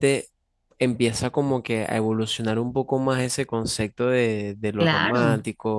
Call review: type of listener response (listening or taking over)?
listening